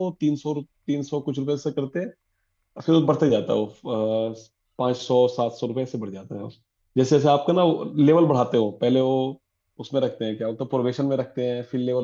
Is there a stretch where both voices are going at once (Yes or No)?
No